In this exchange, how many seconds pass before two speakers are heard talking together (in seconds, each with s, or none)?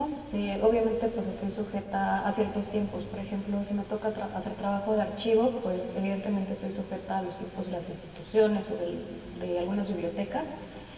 none